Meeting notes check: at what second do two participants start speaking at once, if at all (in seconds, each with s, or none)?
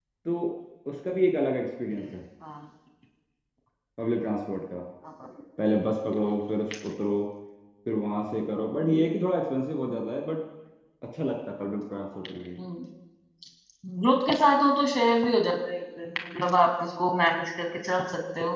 none